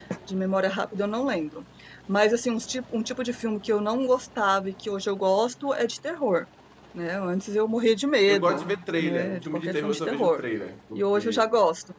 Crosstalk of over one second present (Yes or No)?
Yes